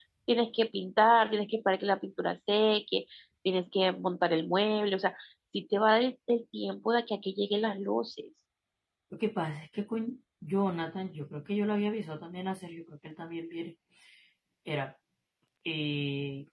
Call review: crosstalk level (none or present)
none